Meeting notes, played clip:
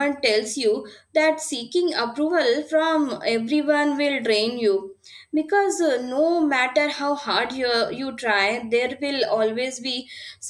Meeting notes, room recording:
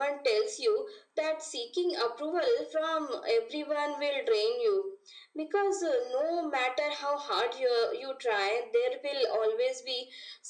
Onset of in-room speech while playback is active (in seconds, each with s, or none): none